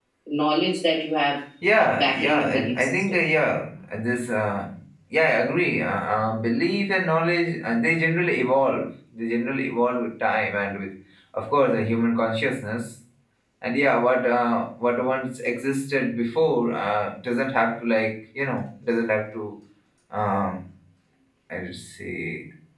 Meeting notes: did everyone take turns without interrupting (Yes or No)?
No